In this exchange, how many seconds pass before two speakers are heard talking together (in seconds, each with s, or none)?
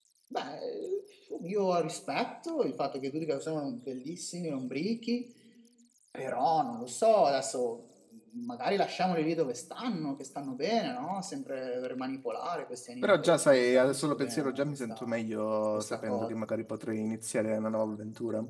13.0 s